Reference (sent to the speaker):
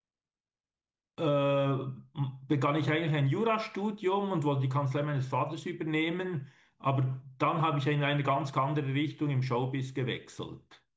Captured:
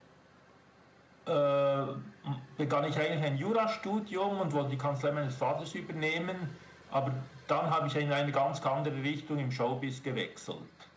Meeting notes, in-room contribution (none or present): none